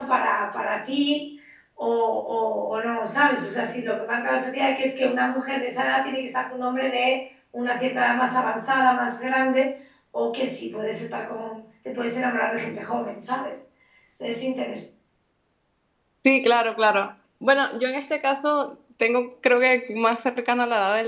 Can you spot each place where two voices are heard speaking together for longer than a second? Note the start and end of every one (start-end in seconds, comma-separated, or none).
none